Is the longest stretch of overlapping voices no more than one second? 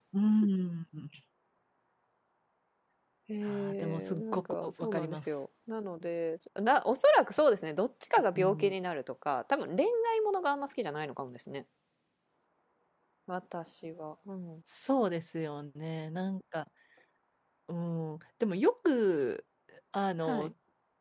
No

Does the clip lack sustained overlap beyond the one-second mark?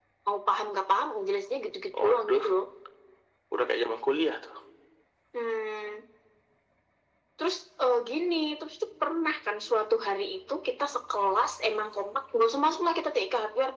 Yes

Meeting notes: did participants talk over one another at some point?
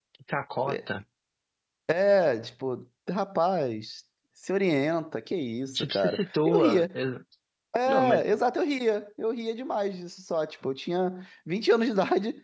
Yes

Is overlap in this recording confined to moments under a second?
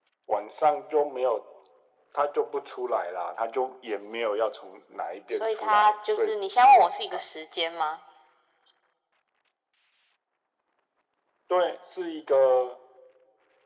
No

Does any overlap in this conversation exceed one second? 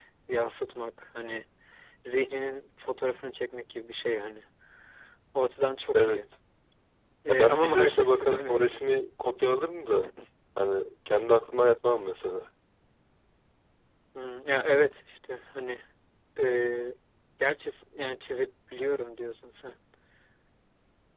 Yes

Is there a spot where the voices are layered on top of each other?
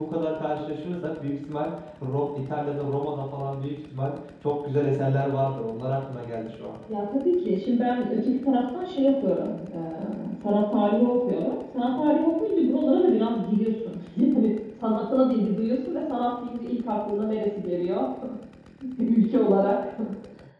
No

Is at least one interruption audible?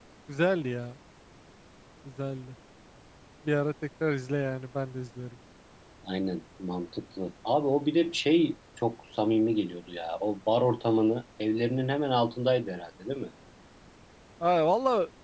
No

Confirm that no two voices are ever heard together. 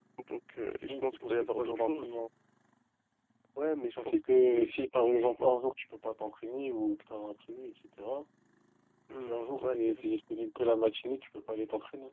No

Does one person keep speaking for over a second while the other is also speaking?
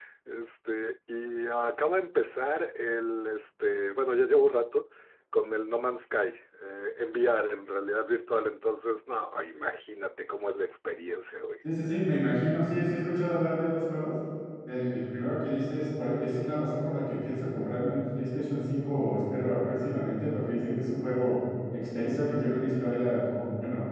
No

